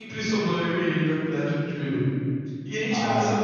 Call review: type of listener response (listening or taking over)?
listening